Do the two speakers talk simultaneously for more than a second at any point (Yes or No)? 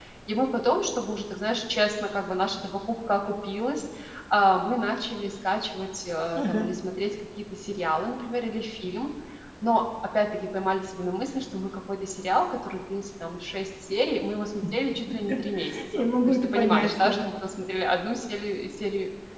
Yes